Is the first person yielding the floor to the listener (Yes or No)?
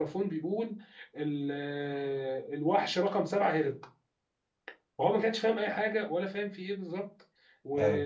No